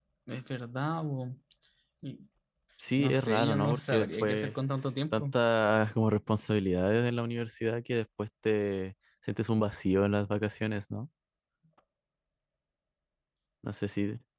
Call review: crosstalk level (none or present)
present